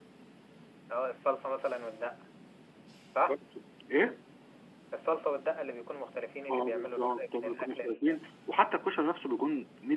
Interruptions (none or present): present